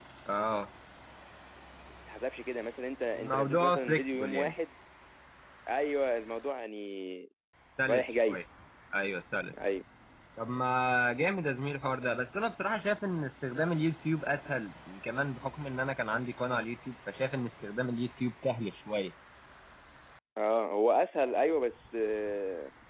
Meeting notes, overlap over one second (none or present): present